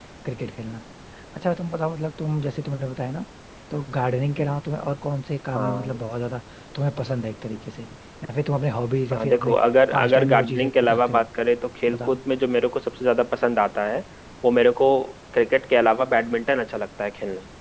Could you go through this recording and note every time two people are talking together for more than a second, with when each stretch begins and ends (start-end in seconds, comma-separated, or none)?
9.9-11.2